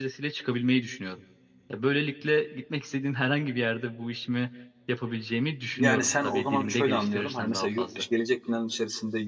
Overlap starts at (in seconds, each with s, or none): 5.8 s